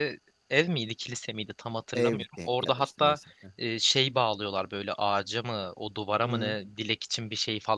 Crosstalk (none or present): present